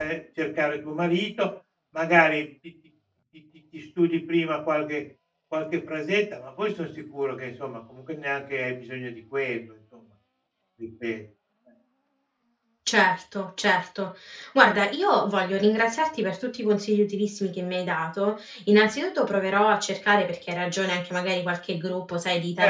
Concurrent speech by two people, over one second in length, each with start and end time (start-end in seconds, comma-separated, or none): none